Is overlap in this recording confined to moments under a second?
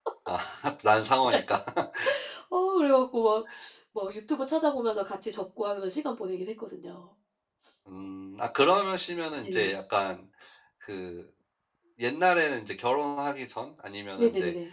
Yes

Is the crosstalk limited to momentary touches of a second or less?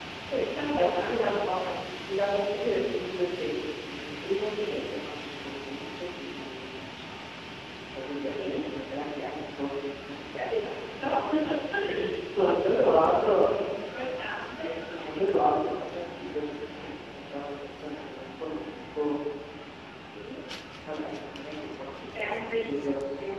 No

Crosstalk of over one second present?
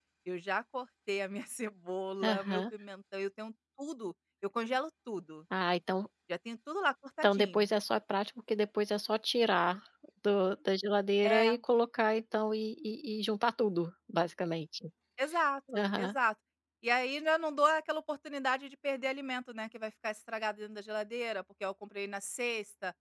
No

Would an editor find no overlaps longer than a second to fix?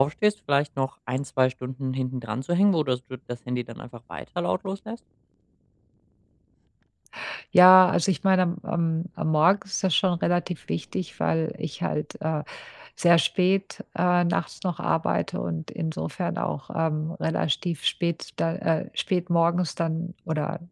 Yes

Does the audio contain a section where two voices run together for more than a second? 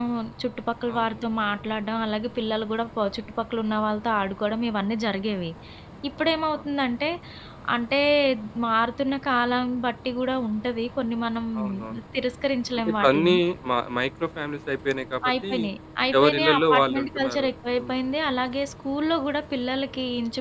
Yes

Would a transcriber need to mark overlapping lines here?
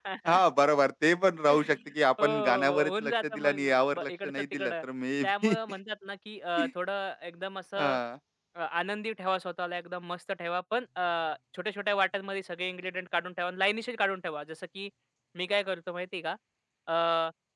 Yes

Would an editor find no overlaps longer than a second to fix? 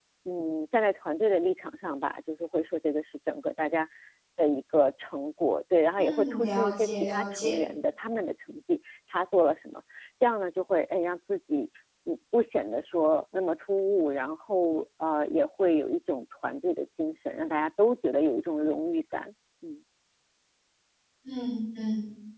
No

